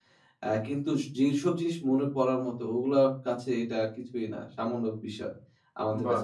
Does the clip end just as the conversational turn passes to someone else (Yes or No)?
No